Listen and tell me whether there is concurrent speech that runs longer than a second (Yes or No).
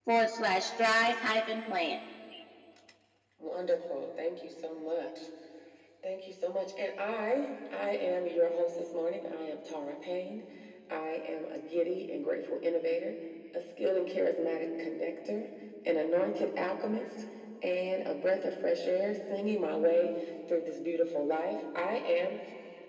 No